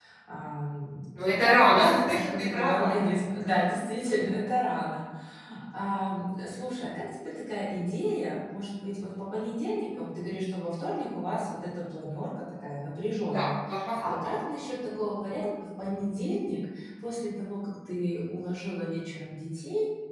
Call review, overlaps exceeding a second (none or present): present